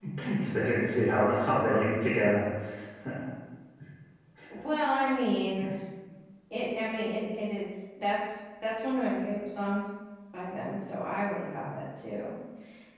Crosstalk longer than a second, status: none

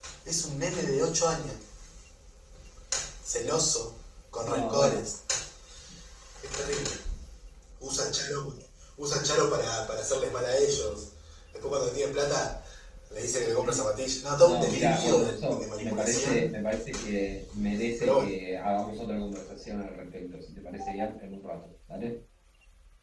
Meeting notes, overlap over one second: present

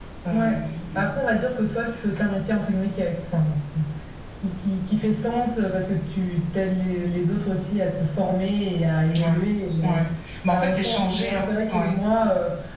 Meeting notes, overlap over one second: present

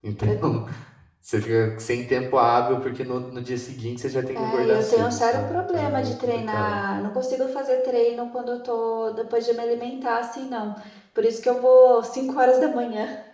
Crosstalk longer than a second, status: present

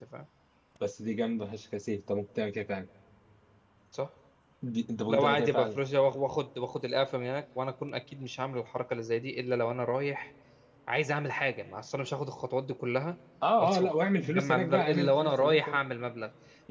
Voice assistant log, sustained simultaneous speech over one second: present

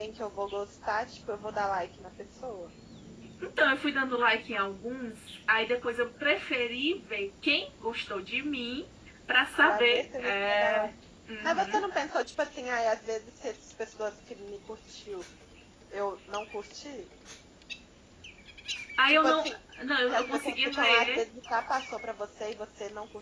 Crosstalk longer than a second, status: present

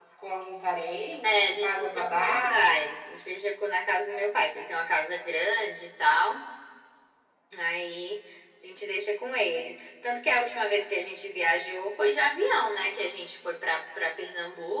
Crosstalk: present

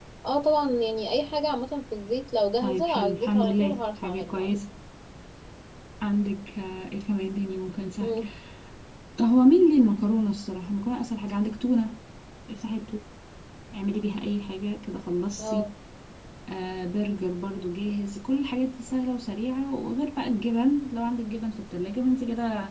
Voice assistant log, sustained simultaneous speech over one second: present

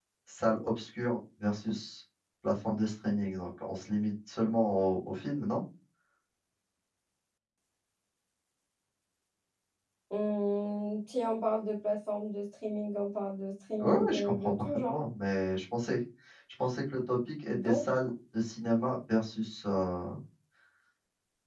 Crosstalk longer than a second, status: present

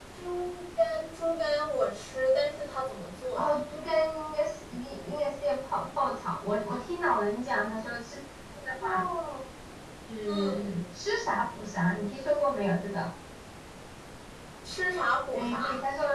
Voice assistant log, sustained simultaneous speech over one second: none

